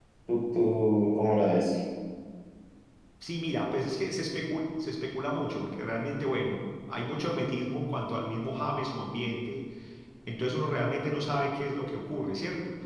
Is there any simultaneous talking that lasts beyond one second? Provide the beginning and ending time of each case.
none

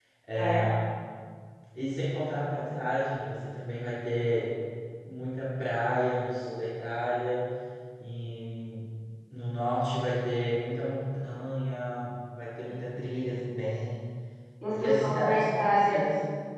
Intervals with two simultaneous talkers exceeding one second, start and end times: 14.7-16.0

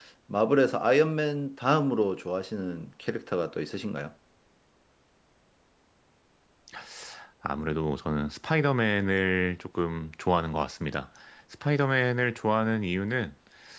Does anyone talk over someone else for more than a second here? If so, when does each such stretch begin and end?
none

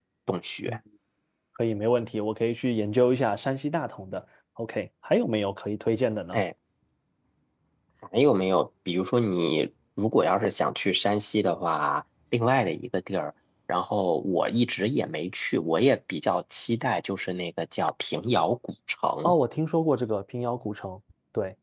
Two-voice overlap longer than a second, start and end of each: none

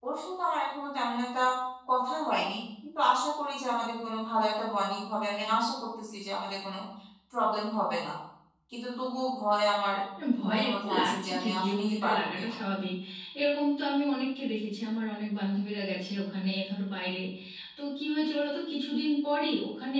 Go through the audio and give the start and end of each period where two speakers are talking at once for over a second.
10.4-12.5

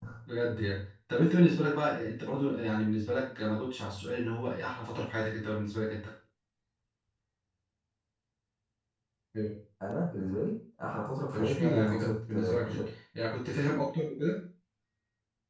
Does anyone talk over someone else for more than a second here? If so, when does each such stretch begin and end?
11.3-12.9

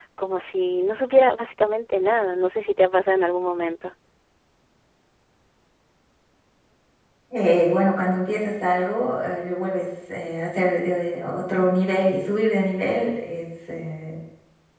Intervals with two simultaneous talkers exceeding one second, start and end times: none

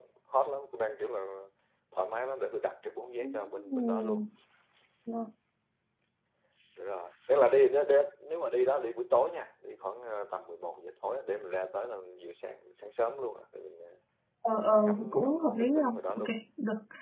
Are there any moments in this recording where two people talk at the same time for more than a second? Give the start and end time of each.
14.5-16.3

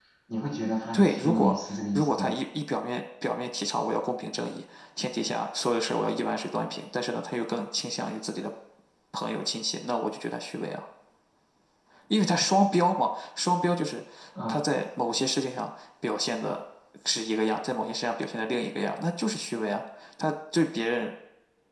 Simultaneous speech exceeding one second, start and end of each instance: 0.9-2.4

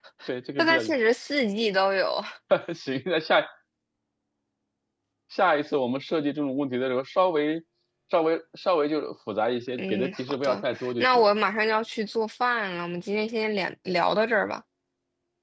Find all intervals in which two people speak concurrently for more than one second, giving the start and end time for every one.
9.8-11.1

